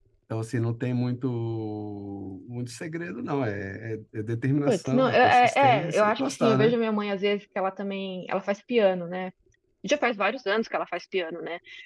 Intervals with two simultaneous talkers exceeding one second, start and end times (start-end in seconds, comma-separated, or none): 4.7-6.8